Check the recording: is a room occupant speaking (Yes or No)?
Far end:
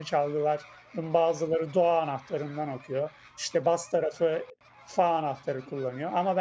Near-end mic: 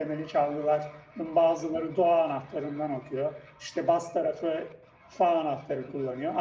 No